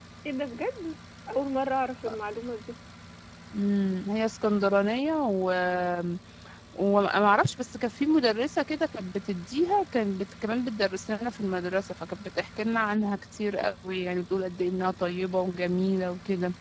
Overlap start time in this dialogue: none

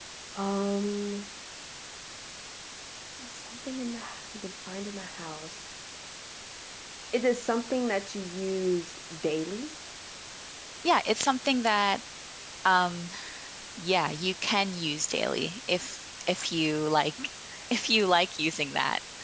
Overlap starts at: none

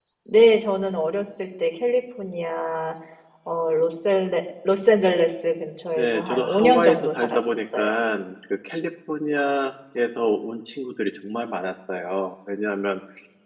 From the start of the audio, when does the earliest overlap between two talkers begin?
6 s

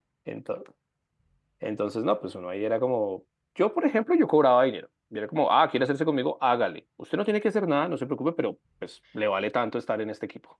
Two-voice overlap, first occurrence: none

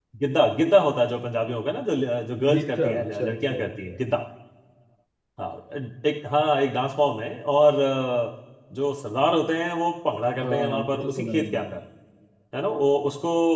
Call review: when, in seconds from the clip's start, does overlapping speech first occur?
3 s

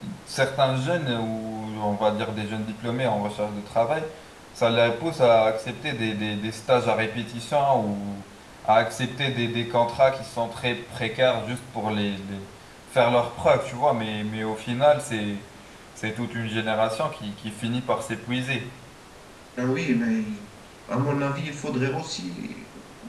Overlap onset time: none

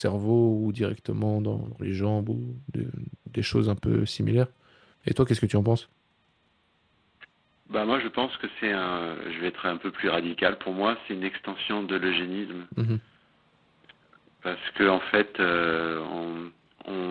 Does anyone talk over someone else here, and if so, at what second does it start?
none

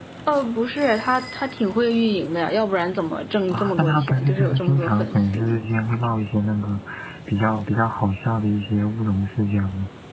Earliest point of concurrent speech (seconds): 4 s

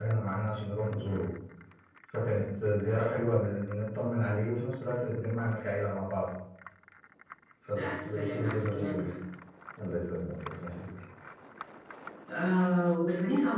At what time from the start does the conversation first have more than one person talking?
8 s

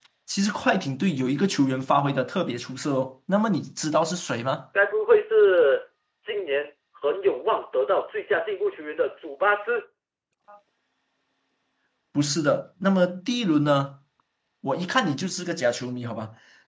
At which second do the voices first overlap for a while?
none

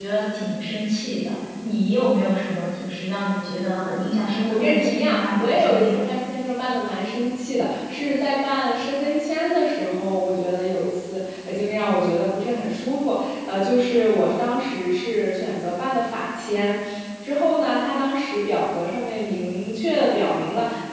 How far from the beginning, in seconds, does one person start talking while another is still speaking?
4 s

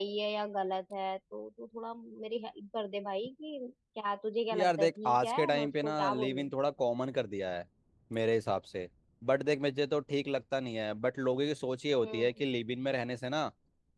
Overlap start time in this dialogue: 5 s

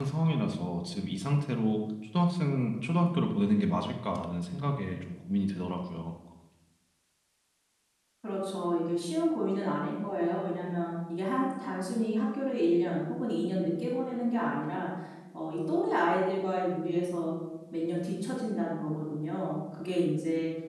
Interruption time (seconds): none

